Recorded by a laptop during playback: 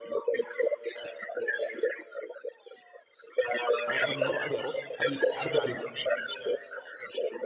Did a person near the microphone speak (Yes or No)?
Yes